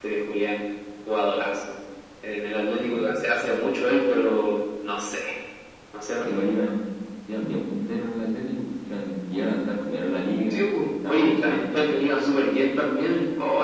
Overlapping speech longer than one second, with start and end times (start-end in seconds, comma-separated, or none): 10.5-11.9